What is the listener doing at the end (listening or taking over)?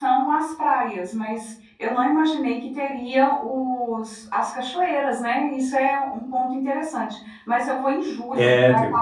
listening